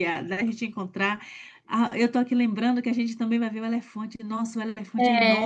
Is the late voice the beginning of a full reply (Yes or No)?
No